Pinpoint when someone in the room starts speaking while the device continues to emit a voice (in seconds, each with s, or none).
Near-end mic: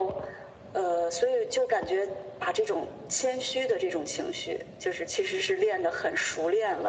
none